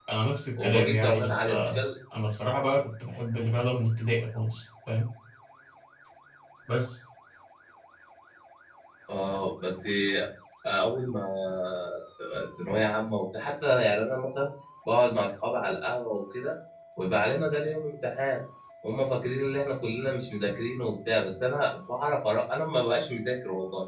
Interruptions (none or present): present